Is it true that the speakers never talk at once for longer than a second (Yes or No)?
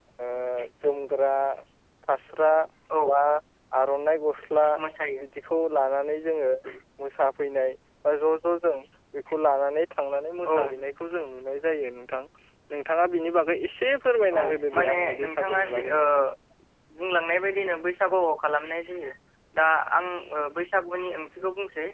No